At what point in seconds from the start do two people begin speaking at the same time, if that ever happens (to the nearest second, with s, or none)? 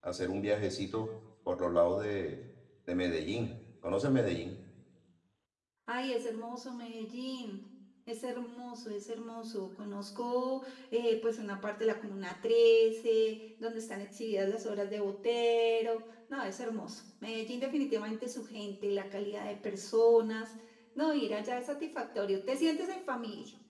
none